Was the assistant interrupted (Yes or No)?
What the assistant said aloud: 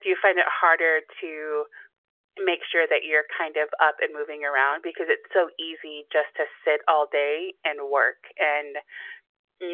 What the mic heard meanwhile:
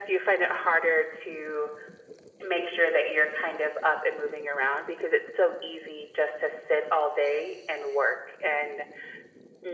No